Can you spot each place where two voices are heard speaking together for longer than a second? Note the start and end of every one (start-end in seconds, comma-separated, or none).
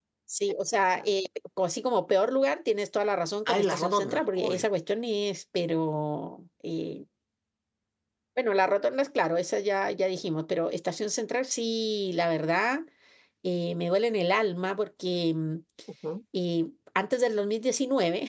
3.5-4.7